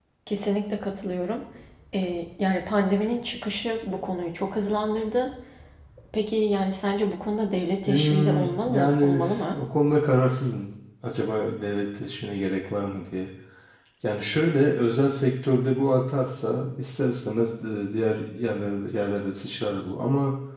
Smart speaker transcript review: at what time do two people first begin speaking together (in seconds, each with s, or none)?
7.9 s